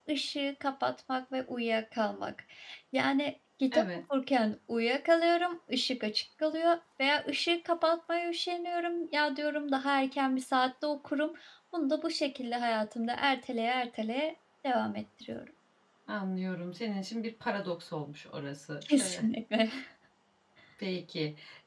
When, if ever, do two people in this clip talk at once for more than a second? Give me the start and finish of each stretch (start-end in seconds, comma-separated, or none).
none